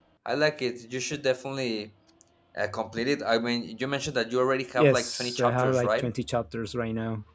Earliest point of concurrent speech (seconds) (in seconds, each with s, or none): 4.8 s